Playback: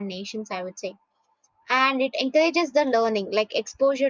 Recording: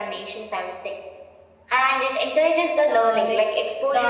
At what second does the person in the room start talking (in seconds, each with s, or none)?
2.8 s